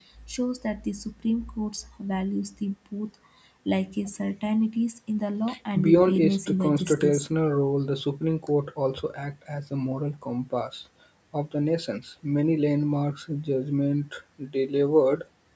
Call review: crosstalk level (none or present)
present